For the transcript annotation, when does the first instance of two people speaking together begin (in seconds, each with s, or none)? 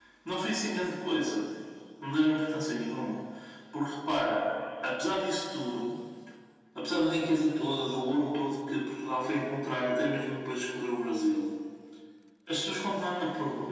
none